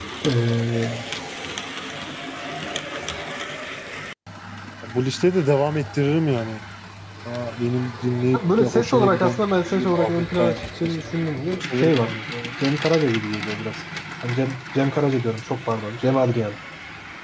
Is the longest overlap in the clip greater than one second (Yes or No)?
Yes